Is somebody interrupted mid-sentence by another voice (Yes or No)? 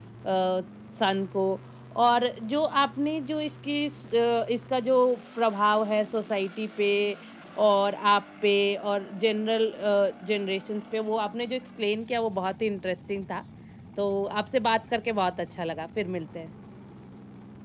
No